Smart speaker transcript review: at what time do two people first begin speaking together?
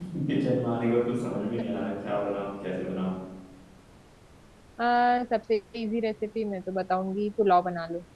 none

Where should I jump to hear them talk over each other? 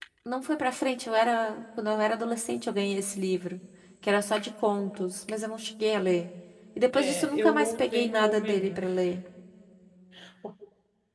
6.9 s

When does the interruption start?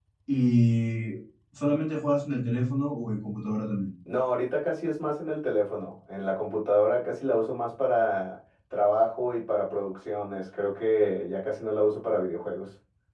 none

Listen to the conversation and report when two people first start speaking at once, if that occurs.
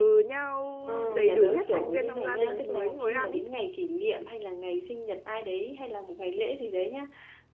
1.1 s

